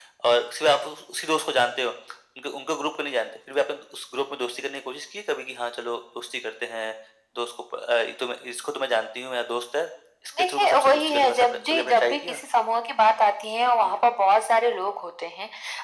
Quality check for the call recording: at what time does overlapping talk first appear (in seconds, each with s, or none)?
10.4 s